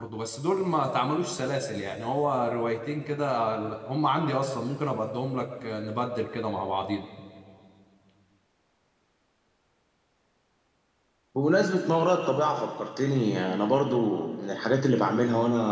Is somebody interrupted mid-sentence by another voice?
No

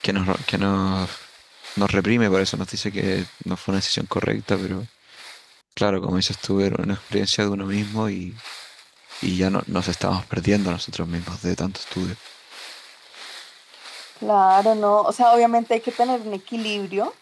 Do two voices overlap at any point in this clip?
No

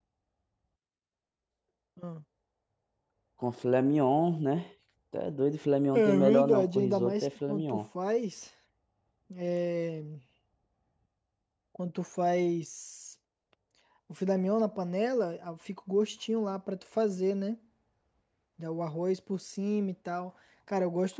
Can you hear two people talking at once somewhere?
Yes, from 5.9 s

